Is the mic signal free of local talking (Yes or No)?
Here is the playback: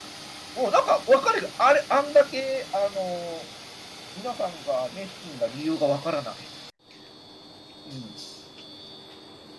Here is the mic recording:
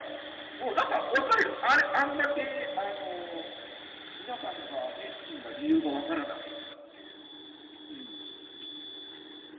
Yes